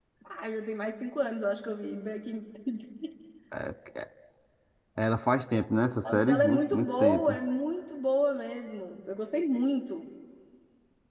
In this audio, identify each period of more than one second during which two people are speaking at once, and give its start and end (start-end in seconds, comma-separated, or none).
6.0-7.4